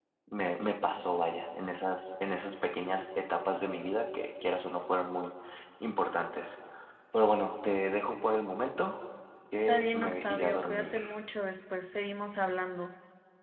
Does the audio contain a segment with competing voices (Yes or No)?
Yes